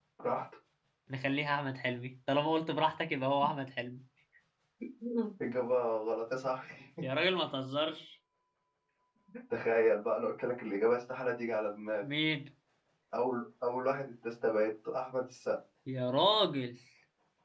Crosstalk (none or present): none